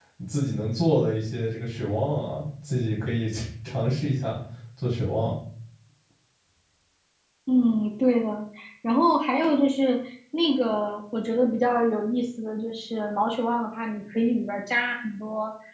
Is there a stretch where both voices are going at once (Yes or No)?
No